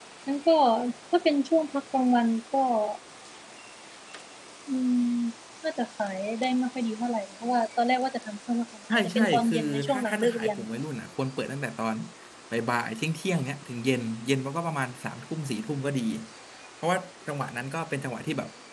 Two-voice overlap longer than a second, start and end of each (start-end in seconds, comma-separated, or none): 9.2-10.6